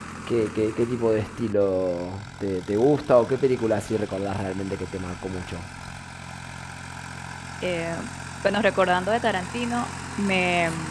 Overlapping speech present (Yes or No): No